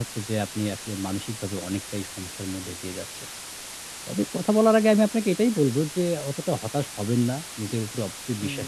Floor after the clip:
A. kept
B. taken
A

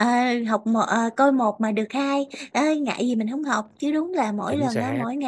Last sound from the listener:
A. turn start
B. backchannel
B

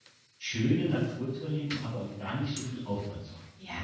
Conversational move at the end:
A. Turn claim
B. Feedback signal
A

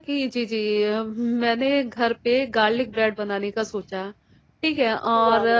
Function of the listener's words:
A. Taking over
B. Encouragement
B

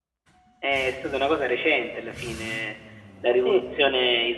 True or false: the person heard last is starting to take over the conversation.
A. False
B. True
A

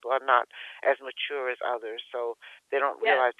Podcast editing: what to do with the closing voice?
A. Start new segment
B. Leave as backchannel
B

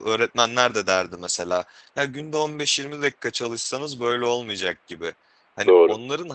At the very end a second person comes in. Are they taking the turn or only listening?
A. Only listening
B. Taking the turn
A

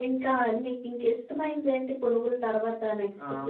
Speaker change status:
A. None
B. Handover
B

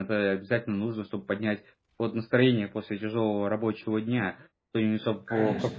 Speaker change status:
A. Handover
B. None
B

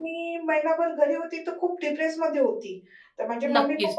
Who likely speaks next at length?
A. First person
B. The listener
A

